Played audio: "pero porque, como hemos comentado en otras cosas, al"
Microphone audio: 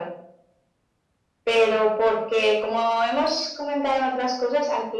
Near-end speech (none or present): none